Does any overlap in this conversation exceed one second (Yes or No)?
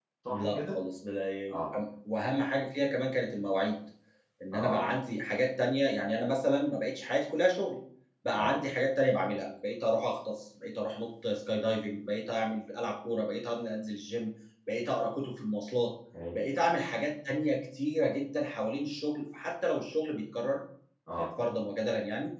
No